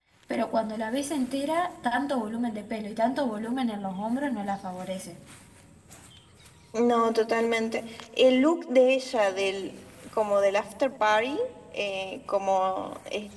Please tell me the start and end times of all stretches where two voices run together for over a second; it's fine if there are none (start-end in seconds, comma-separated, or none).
none